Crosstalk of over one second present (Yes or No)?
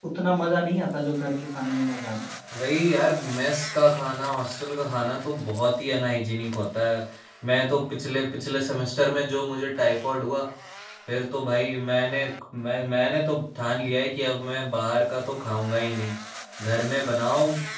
No